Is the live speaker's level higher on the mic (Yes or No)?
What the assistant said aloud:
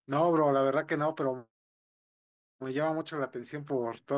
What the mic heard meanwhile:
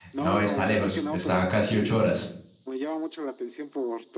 Yes